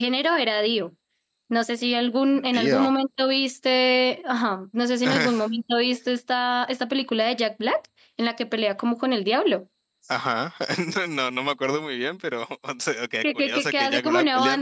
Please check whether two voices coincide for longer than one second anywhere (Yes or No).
Yes